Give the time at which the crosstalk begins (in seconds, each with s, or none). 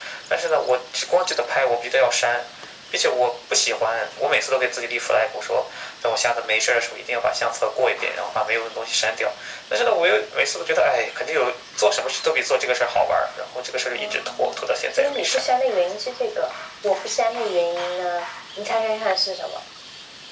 13.9 s